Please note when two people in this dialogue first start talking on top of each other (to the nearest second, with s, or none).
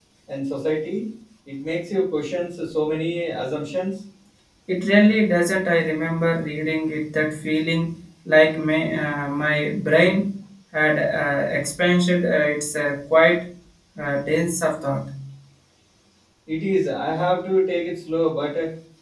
none